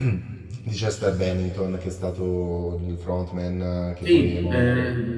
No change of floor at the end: No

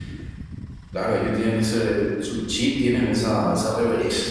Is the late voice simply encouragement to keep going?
Yes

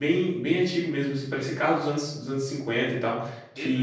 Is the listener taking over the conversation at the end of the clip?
No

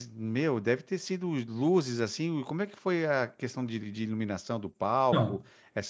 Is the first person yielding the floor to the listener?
No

